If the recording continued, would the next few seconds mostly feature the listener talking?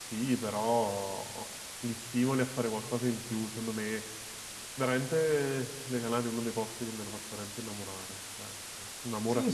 Yes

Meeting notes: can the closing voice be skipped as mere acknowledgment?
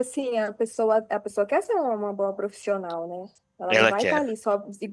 Yes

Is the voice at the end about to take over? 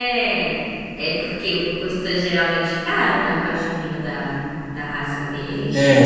Yes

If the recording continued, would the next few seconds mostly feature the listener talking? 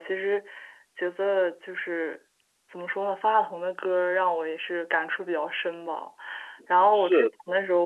No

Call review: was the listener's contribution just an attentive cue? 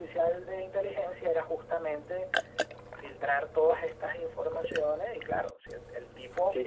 No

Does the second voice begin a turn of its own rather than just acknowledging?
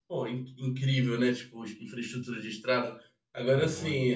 No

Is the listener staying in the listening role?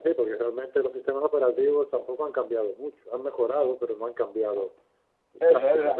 No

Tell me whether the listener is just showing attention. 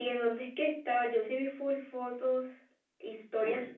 Yes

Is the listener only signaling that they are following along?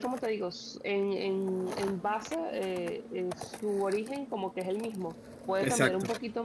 Yes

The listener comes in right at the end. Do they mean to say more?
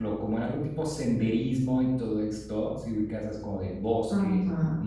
No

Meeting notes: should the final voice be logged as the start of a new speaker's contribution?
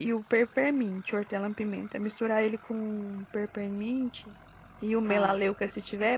No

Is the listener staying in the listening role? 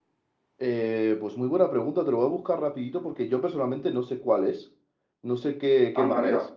No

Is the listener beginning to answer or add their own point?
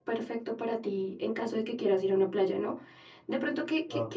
No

